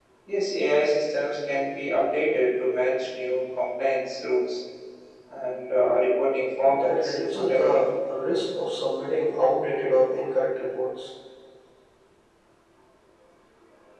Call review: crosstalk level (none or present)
present